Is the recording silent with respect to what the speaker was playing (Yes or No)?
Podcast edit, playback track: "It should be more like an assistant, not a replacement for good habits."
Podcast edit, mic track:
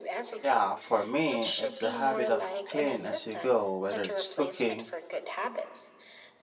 No